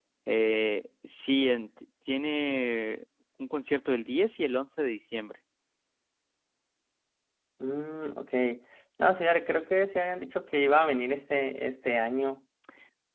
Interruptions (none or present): none